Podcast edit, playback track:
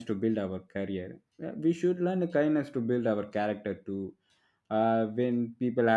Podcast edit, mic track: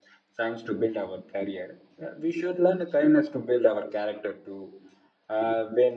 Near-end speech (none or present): none